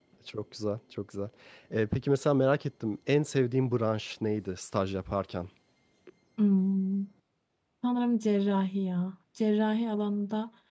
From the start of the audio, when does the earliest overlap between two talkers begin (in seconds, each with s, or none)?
none